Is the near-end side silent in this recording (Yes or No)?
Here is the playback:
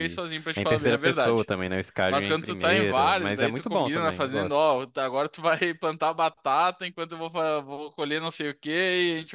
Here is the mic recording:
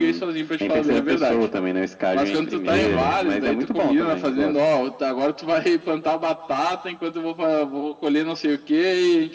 No